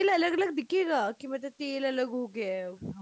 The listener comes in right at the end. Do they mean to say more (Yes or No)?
Yes